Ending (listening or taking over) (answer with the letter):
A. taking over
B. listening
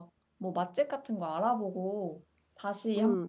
A